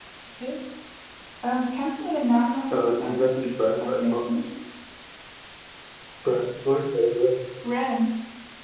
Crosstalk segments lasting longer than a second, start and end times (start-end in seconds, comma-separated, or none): 2.7-4.2